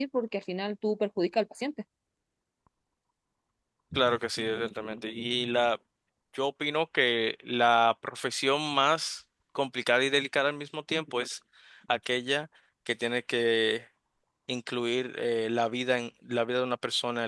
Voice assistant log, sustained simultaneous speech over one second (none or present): none